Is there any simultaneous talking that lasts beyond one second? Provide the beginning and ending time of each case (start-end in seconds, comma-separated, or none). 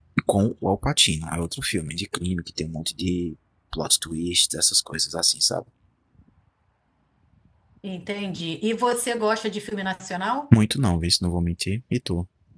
none